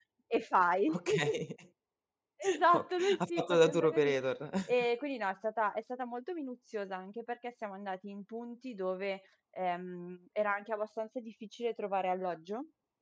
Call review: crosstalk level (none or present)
present